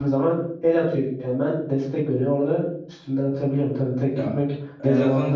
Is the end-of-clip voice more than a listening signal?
Yes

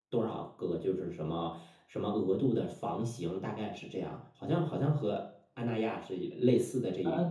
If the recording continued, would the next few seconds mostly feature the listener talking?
Yes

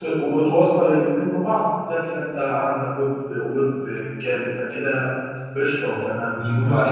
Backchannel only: No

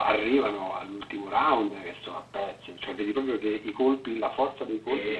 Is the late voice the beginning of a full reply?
No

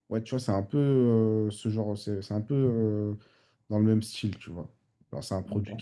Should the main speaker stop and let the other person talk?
No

